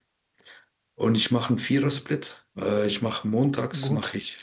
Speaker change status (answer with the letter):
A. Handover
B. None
B